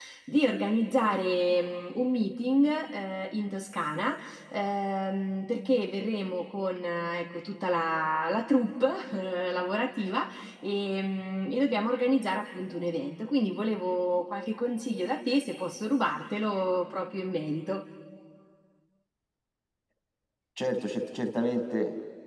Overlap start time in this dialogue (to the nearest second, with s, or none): none